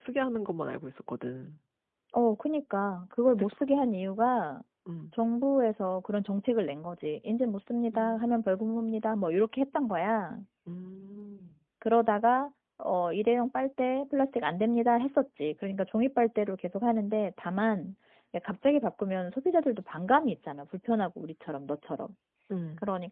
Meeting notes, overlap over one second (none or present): none